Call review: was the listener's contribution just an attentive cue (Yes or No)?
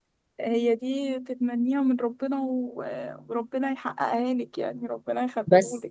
No